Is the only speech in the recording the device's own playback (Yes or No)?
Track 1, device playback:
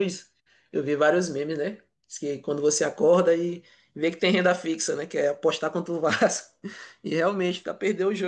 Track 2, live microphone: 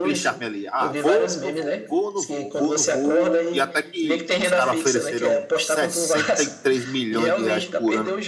No